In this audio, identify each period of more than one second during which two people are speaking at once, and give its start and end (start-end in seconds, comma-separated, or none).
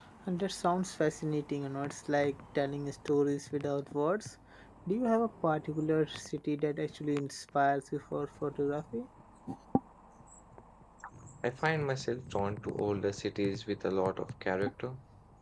none